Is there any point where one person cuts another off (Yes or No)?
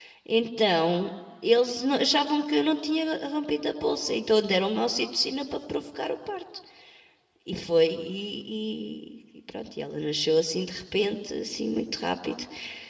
No